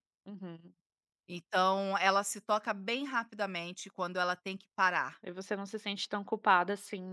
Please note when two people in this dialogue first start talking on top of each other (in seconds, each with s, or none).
none